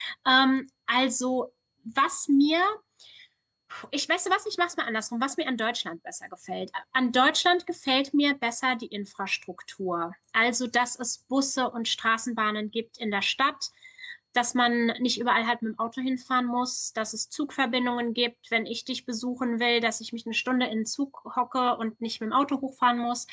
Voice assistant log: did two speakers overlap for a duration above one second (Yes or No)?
No